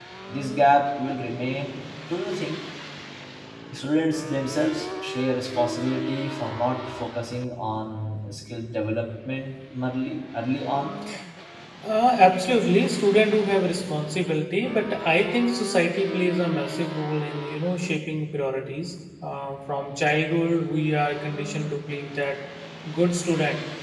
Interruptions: none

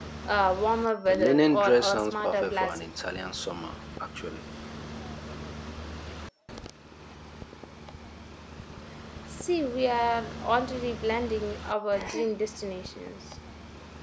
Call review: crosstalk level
present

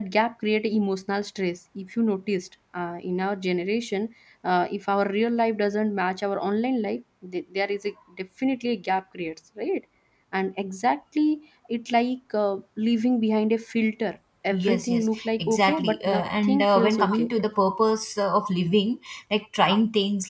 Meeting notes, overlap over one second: present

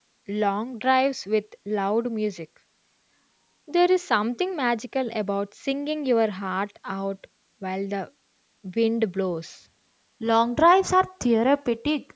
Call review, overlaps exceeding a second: none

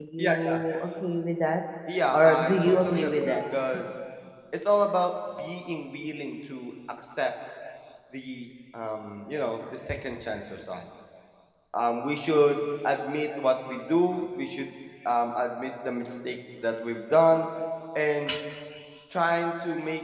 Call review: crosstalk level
present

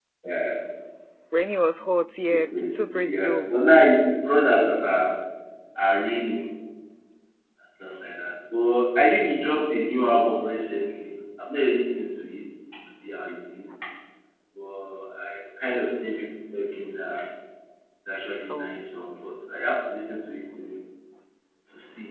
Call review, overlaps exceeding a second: present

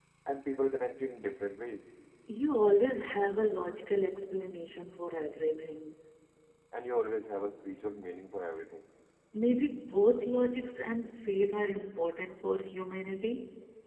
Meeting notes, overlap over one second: none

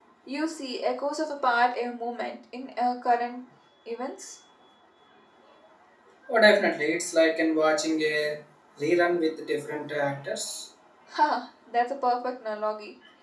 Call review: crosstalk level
none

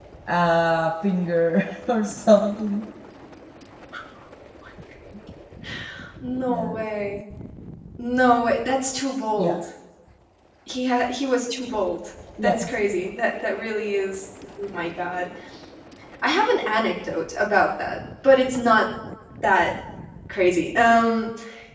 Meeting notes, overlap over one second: none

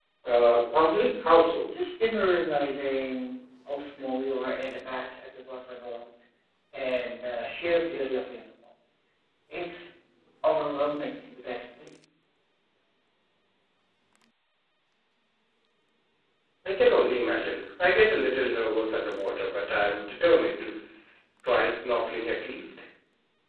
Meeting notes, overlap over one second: none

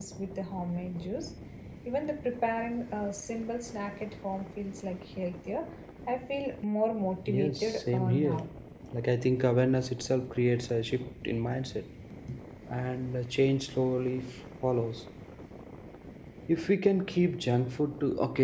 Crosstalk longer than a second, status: present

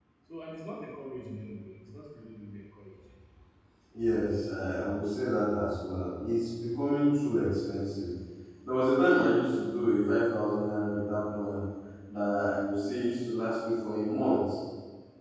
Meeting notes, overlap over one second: none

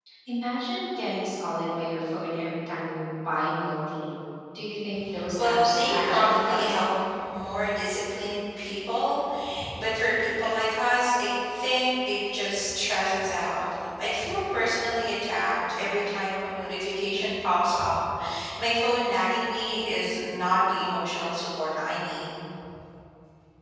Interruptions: present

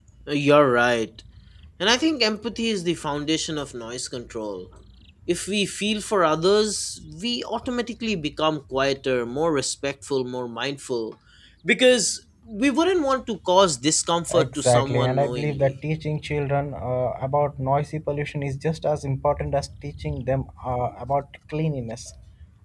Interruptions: present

